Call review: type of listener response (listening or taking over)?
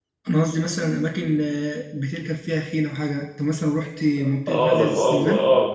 taking over